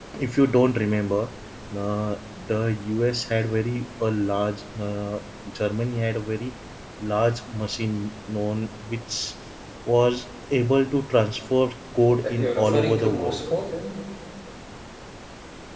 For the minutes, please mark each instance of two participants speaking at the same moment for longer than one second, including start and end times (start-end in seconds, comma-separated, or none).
12.1-13.4